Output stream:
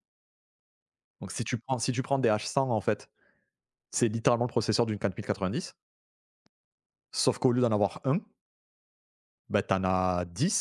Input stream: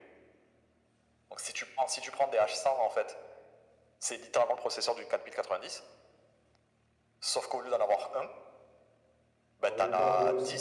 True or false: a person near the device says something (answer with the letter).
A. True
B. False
A